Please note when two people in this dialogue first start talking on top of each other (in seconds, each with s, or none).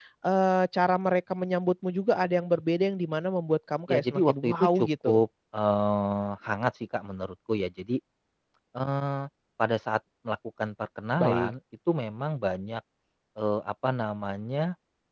3.9 s